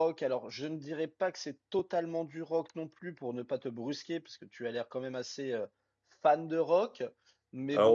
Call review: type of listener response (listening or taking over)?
taking over